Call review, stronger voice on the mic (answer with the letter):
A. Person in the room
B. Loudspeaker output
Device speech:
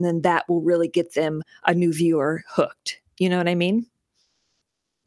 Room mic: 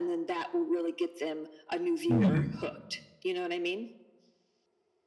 A